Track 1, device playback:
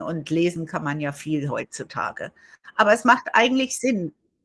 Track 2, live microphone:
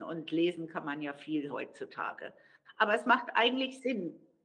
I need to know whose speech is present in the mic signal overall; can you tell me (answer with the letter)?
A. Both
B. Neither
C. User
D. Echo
D